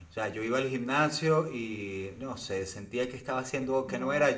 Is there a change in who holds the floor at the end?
No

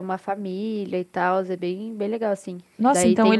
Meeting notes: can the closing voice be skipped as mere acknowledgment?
No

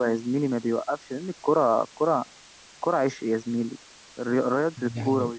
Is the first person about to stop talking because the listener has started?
No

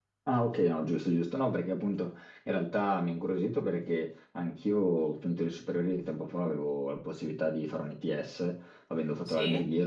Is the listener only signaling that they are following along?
Yes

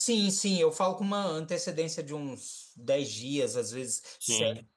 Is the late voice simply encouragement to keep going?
Yes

